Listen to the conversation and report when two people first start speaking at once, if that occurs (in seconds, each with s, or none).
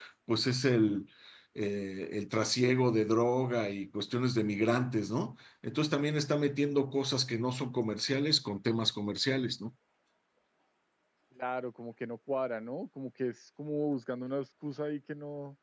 none